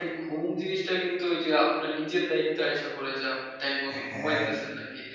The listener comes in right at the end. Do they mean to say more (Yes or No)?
No